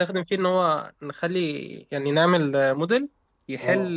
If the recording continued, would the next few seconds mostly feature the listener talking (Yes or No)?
No